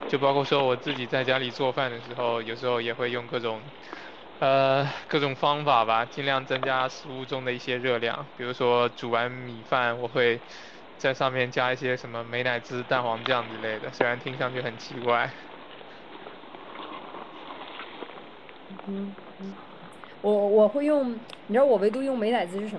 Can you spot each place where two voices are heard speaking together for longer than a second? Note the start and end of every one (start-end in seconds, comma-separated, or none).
none